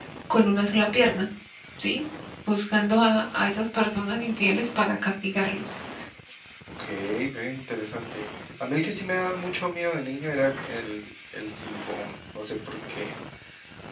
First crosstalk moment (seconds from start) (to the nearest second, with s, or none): none